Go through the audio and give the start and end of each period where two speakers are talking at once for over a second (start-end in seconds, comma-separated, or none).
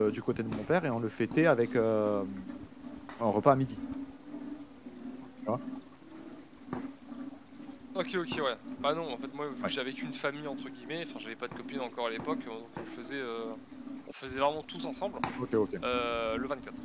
none